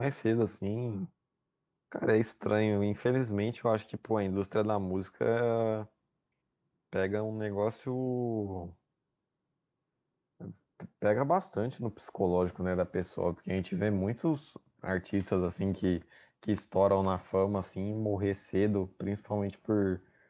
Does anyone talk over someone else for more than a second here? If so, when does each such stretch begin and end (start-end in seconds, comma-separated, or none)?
none